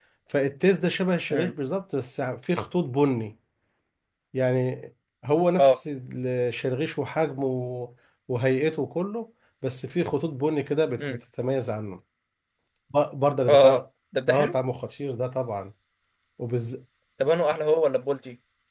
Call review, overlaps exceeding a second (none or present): none